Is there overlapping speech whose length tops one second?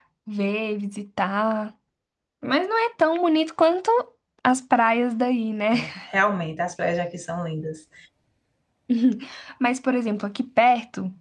No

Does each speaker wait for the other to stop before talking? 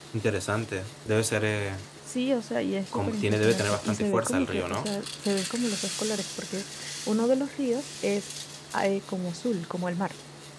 No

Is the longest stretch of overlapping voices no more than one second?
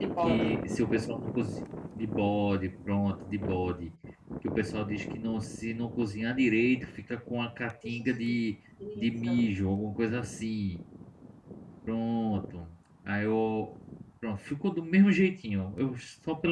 Yes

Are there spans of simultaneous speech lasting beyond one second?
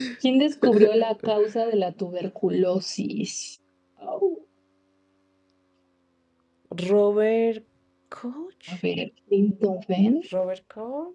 No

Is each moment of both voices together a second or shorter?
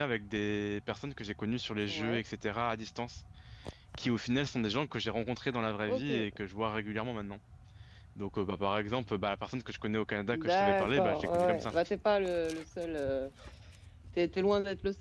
No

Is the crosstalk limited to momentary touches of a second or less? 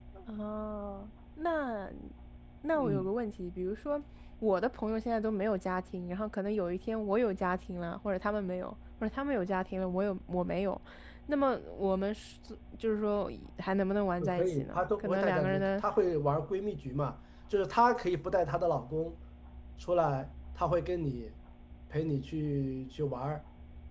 No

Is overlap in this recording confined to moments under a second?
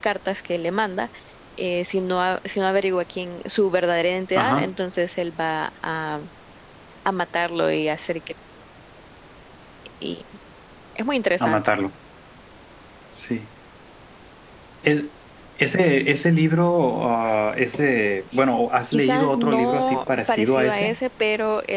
No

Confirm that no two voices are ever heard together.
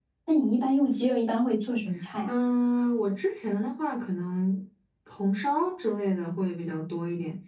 Yes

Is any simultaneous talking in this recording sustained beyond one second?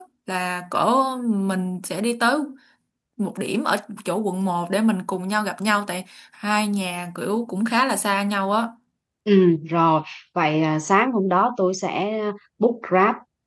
No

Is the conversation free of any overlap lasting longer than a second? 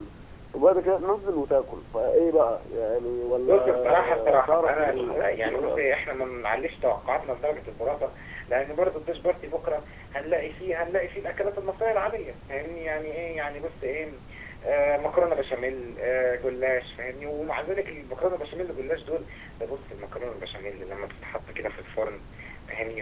No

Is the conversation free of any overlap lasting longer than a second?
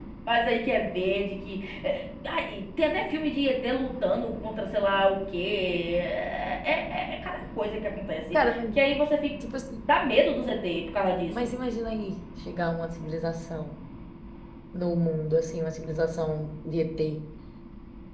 Yes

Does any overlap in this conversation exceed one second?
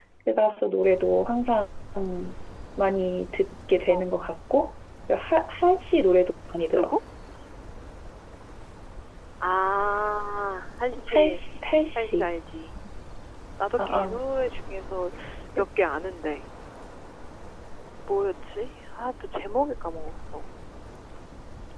No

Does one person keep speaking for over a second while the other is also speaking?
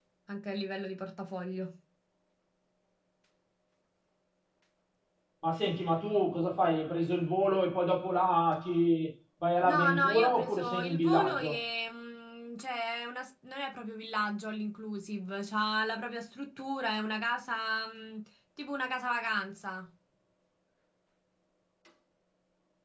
Yes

